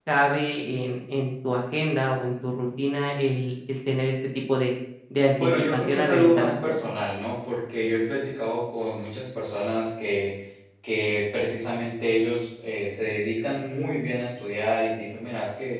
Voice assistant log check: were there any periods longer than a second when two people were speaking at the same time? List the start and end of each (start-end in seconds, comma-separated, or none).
5.4-6.8